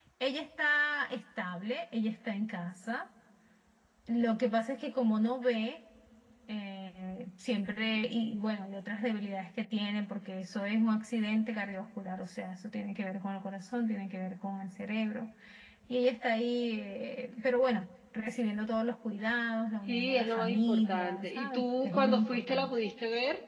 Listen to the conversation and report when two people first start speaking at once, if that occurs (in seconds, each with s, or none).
19.9 s